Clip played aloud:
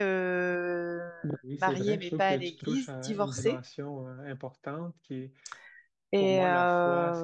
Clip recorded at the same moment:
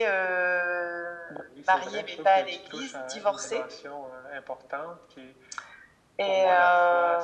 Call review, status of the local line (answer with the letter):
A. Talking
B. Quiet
B